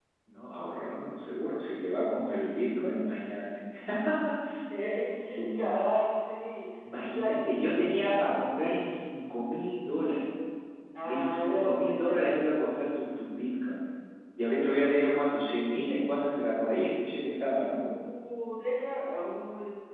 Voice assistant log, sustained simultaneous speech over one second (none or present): present